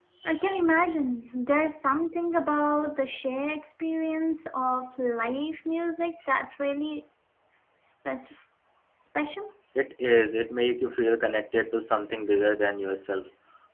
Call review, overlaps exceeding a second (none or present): none